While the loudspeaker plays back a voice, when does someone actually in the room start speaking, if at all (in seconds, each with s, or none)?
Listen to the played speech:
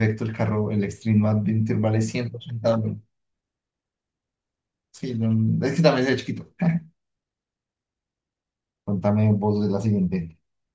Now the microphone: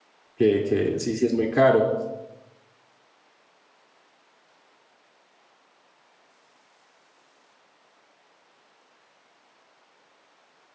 0.4 s